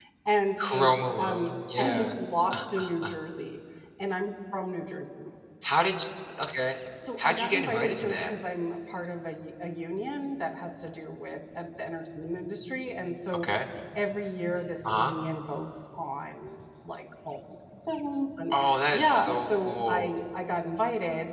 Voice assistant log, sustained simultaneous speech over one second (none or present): present